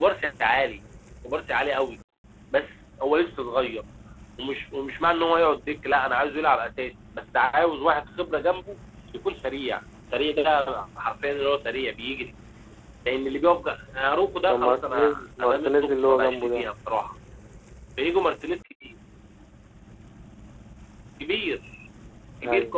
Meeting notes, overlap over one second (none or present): present